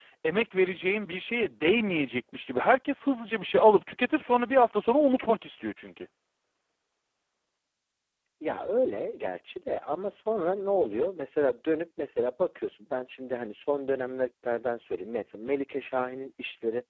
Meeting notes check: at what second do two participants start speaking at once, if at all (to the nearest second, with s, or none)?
none